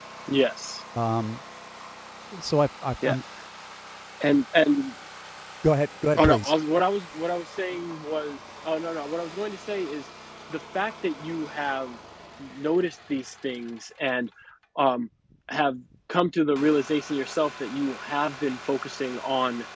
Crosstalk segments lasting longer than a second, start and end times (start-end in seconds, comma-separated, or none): none